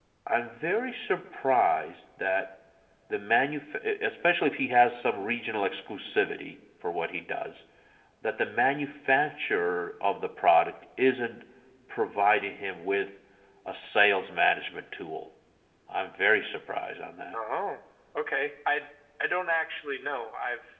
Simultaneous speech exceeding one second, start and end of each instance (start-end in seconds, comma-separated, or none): none